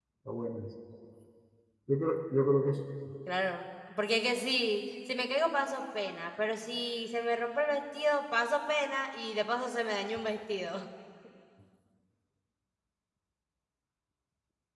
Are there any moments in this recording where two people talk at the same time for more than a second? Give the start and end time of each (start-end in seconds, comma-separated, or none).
none